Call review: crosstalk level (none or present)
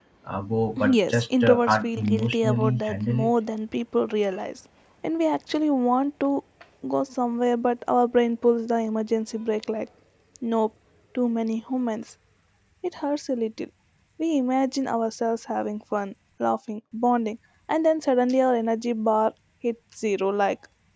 present